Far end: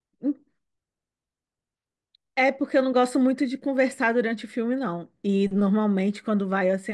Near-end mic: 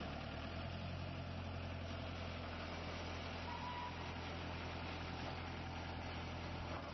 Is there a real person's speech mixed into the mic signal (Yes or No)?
No